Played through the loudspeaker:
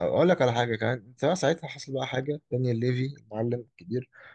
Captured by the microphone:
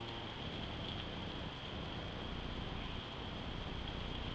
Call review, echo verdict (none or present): none